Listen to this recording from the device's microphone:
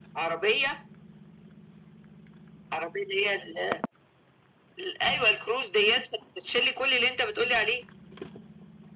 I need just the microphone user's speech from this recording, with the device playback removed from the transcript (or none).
none